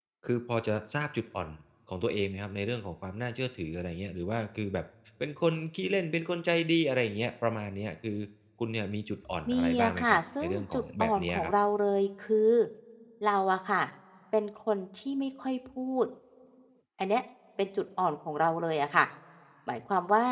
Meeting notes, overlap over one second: present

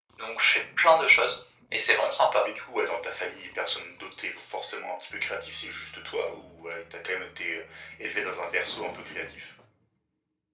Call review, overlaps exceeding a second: none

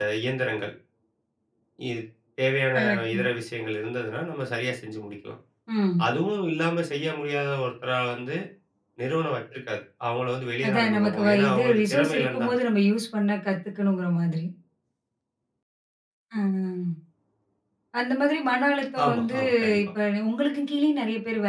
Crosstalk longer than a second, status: present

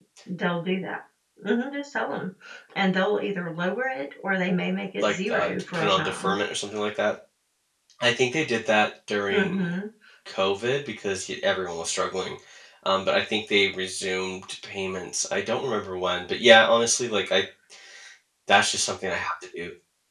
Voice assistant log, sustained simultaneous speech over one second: present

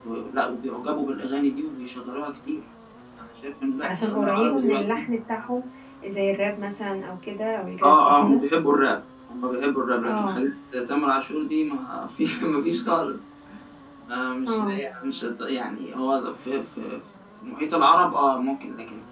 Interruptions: present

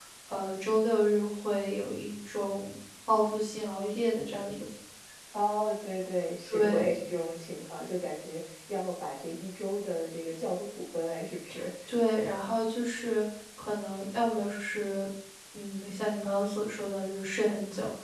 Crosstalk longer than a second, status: none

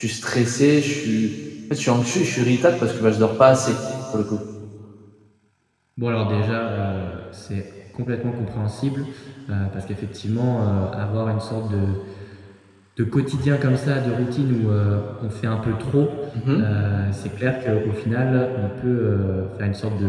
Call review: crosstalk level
none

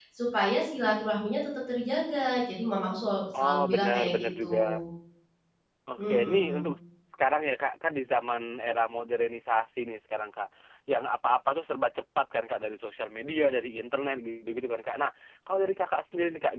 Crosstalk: present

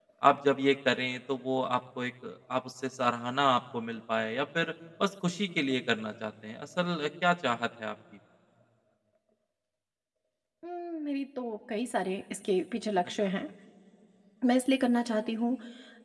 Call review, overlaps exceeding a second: none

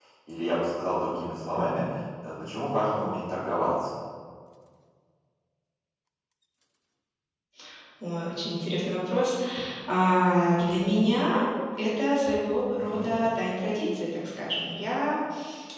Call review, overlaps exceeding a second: none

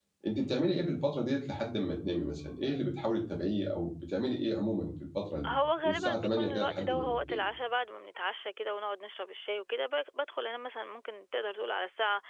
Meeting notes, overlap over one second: present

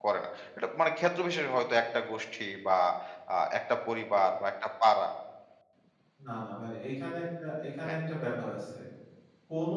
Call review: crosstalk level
none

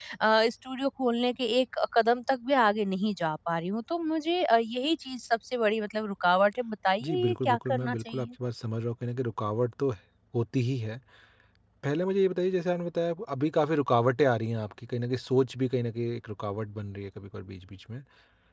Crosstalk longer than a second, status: present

